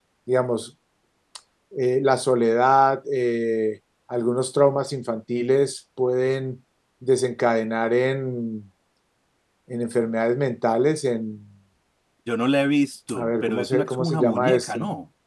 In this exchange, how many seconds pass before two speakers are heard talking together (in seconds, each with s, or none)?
13.1 s